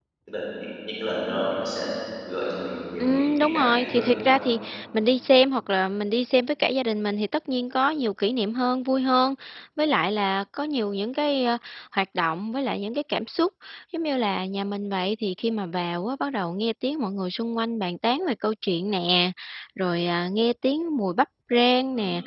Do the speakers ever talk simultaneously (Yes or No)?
Yes